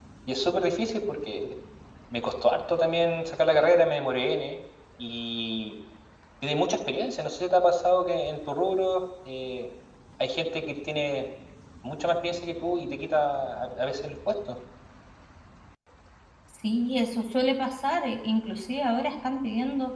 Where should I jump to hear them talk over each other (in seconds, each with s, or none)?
none